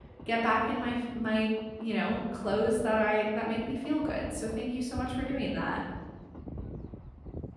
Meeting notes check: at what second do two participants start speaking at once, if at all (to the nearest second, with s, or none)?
none